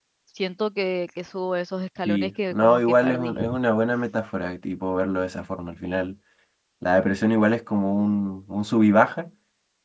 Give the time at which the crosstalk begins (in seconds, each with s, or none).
2.0 s